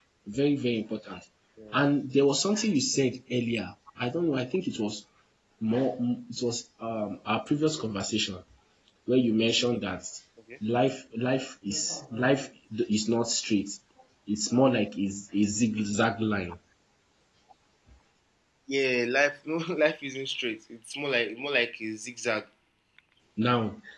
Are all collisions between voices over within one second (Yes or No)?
Yes